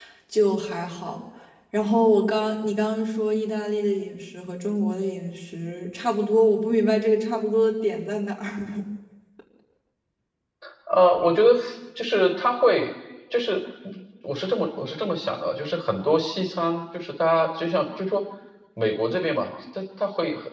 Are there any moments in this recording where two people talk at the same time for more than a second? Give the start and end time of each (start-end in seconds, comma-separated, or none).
none